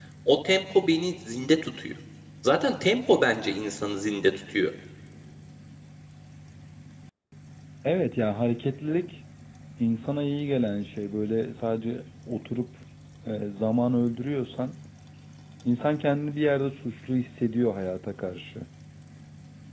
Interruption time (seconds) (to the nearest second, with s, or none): none